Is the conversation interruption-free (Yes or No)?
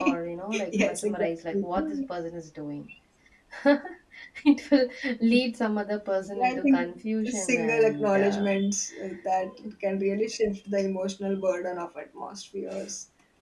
No